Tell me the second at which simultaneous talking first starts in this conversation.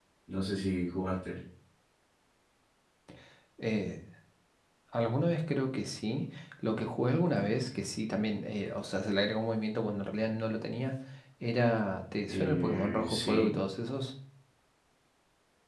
12 s

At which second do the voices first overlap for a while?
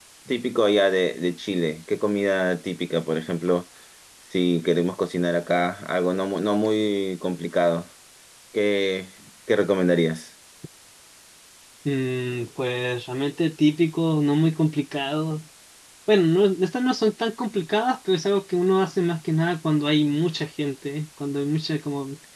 none

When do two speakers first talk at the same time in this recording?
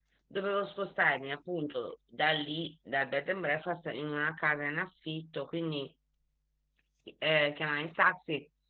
none

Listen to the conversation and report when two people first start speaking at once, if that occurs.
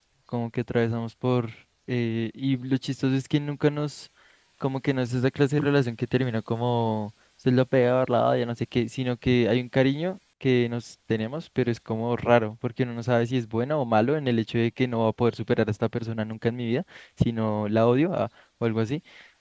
none

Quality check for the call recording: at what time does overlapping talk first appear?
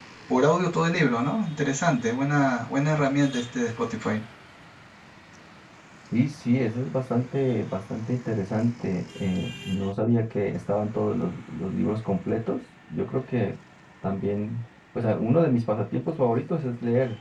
none

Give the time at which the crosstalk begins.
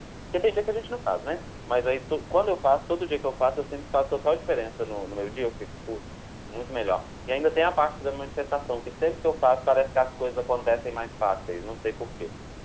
none

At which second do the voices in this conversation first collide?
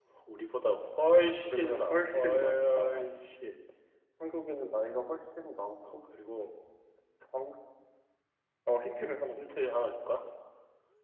1 s

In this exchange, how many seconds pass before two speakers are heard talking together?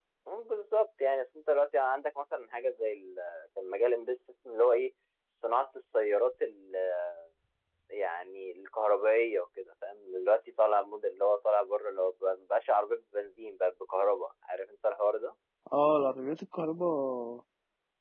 none

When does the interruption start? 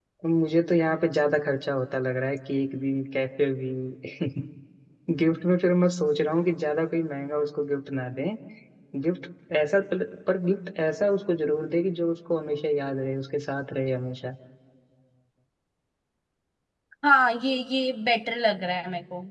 none

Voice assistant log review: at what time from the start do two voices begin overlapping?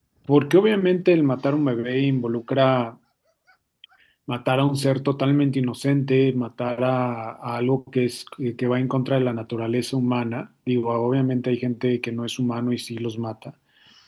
none

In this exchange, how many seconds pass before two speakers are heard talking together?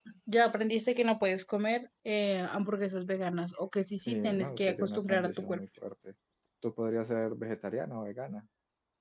4 s

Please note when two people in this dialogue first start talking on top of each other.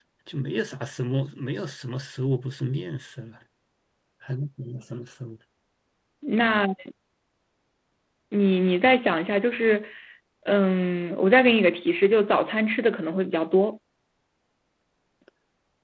none

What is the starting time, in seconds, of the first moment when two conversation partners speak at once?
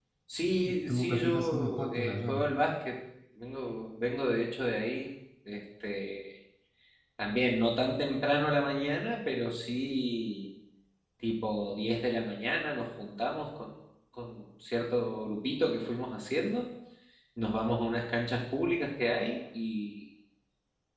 1 s

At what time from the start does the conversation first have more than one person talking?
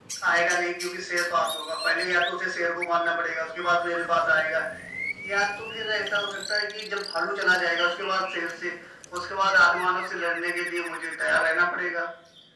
none

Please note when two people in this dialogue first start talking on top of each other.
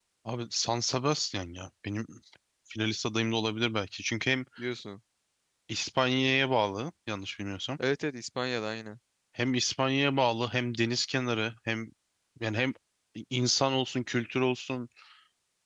none

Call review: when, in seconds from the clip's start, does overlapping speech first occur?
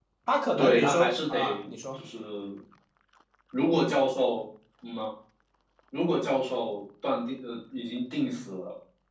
1 s

